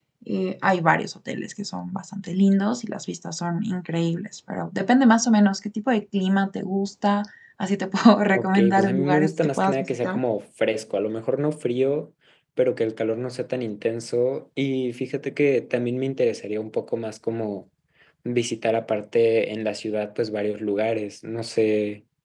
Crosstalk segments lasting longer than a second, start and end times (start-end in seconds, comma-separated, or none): 8.3-10.2